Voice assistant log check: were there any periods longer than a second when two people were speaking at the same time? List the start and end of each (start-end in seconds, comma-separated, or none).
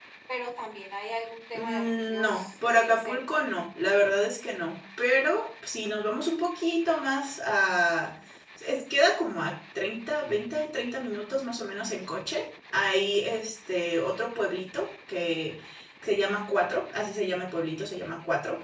1.5-3.4